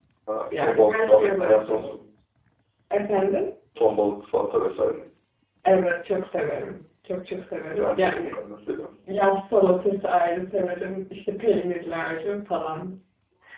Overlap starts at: 1 s

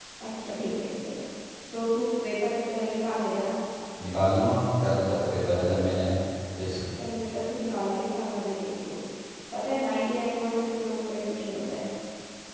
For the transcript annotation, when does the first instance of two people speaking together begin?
none

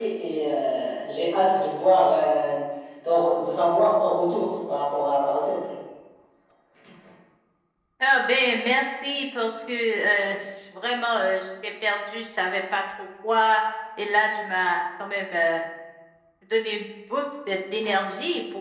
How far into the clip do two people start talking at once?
none

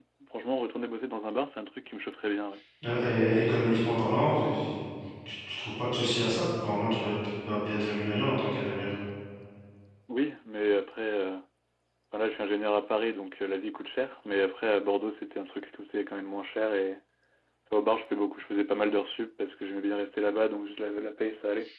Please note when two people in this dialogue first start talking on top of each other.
none

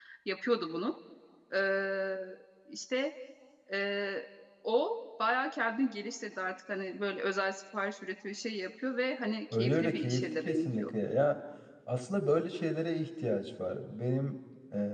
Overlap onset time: 10 s

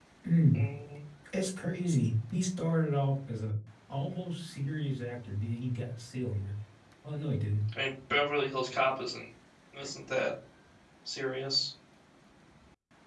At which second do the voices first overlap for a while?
none

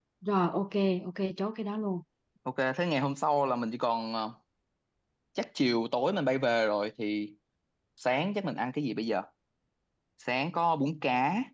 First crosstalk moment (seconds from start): none

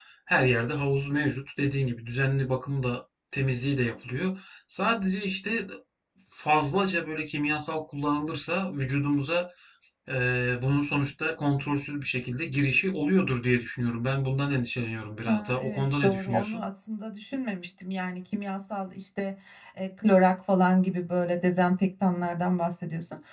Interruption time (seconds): 15 s

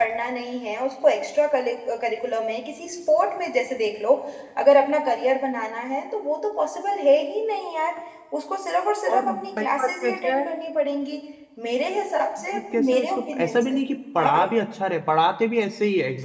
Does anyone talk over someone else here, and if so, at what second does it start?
9 s

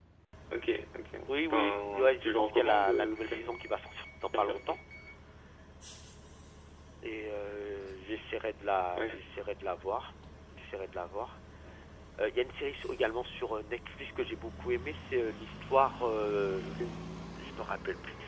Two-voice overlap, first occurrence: 2 s

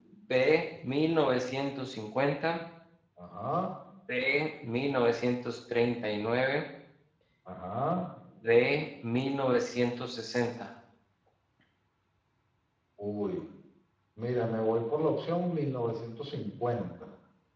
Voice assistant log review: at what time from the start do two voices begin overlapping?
none

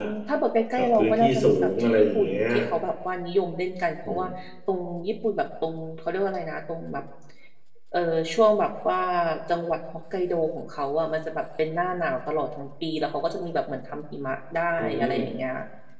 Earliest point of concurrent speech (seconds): 1 s

